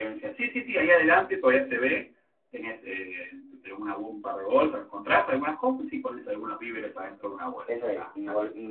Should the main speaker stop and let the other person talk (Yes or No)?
Yes